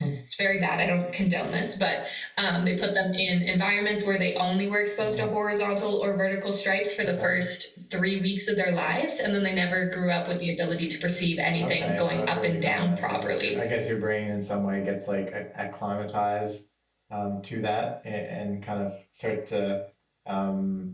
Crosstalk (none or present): present